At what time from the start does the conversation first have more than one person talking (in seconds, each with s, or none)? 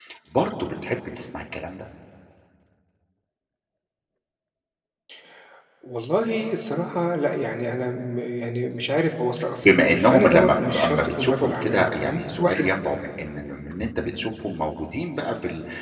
9.6 s